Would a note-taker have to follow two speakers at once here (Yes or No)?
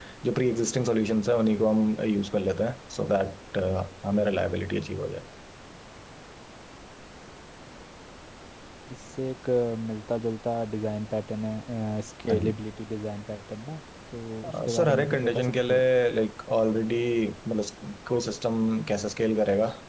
Yes